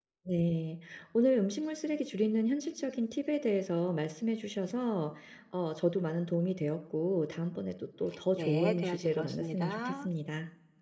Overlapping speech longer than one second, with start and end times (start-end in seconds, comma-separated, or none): 8.3-10.1